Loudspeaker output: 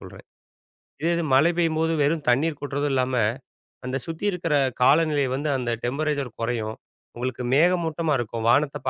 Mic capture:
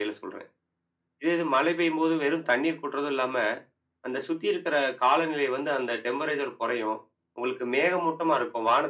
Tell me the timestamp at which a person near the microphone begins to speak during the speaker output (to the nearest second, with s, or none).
none